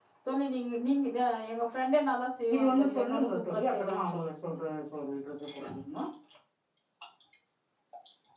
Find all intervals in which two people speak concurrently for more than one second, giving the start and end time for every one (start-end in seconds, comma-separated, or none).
2.5-4.3